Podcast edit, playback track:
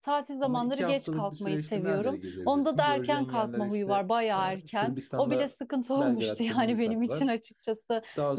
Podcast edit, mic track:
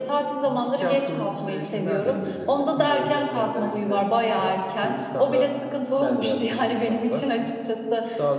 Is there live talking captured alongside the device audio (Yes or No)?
Yes